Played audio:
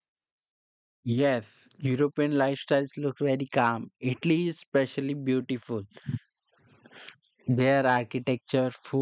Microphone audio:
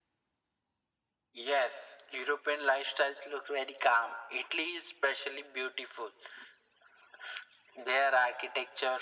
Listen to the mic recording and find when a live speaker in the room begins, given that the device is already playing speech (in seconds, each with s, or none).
none